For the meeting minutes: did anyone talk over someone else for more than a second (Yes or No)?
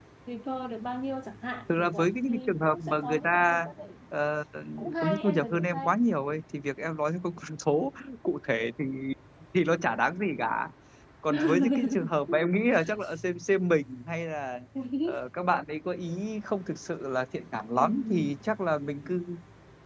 Yes